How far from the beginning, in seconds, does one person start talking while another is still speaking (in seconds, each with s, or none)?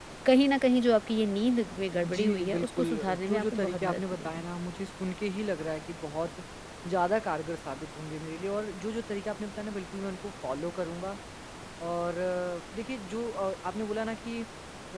2.0 s